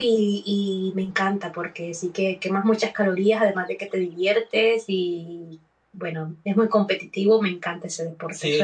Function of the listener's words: taking over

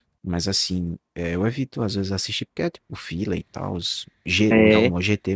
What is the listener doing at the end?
listening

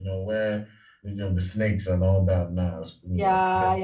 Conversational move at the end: taking over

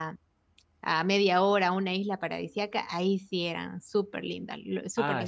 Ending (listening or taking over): taking over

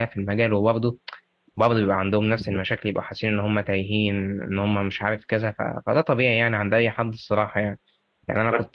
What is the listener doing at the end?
listening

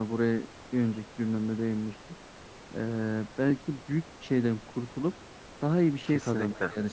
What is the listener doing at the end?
listening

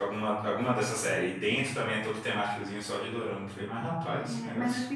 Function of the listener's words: taking over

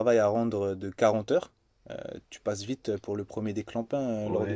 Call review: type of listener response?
taking over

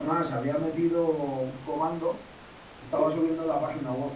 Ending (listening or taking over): listening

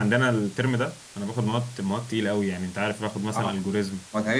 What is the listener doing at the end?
taking over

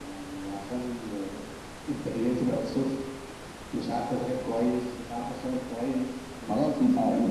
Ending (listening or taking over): taking over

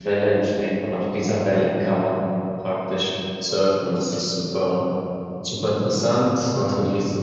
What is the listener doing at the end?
listening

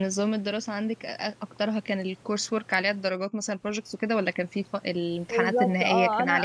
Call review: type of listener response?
taking over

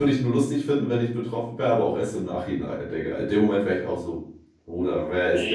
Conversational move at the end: taking over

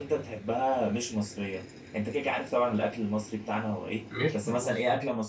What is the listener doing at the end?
listening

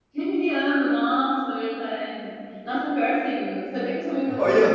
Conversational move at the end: taking over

